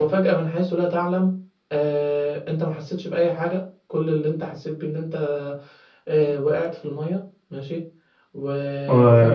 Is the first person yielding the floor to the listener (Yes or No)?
No